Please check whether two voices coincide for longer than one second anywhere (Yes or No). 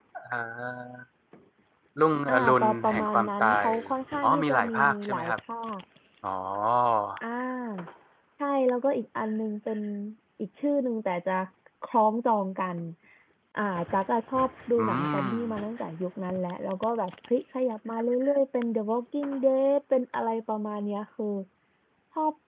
Yes